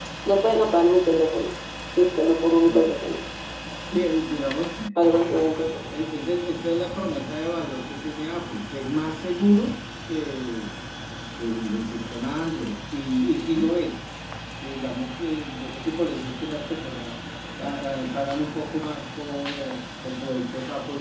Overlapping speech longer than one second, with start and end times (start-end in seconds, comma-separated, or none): none